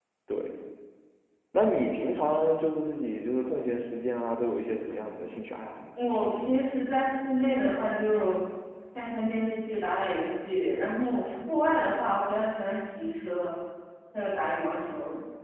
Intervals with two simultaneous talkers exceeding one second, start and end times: none

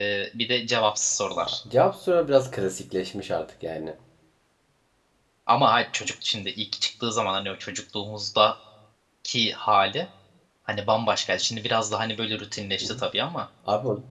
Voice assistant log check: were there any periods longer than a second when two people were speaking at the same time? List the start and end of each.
none

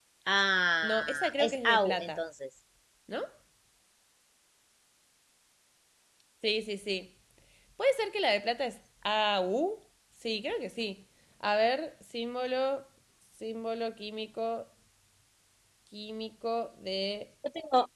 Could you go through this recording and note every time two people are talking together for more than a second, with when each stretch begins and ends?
0.8-2.2

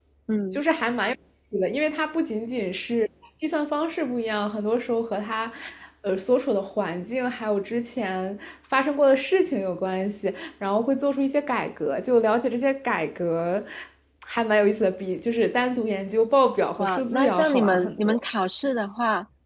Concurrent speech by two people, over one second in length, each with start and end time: 16.8-18.2

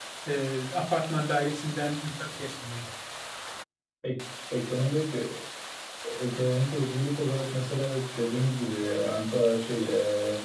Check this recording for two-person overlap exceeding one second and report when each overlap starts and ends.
none

